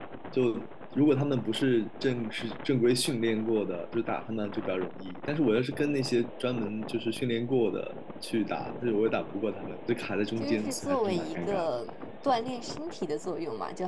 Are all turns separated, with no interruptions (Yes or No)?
No